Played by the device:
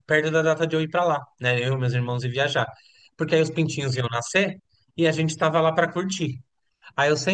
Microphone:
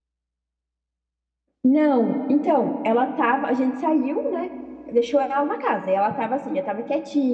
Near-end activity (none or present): present